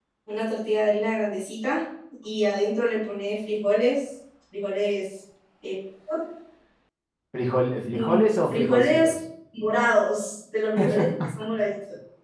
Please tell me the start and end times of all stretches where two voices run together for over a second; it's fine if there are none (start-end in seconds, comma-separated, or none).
7.9-9.2